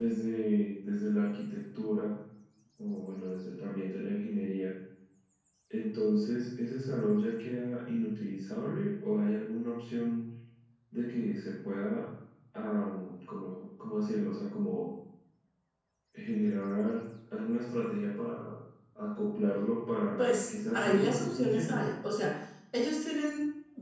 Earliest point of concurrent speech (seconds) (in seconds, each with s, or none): 20.2 s